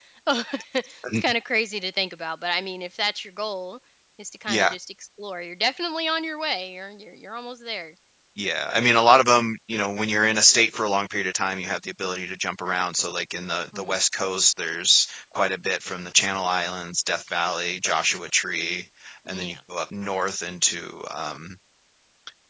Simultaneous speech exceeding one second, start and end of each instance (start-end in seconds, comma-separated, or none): none